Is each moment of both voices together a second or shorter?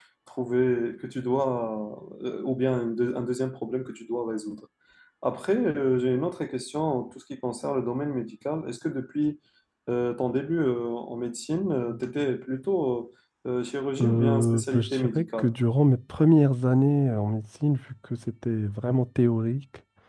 No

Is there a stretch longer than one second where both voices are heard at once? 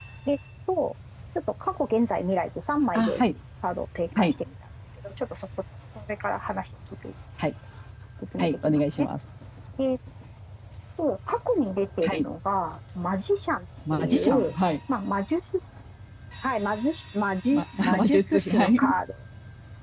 Yes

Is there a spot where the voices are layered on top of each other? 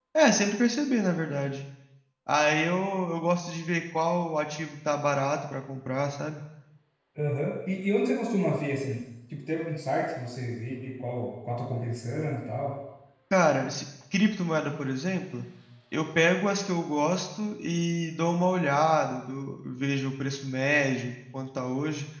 No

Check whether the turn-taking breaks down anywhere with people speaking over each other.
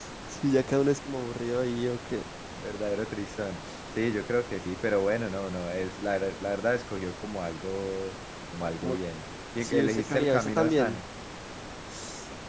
Yes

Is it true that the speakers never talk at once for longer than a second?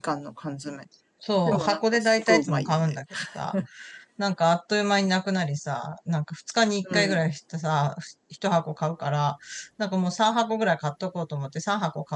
No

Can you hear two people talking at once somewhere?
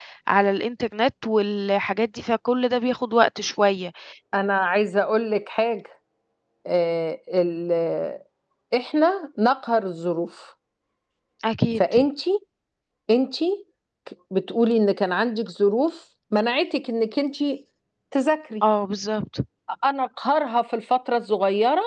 No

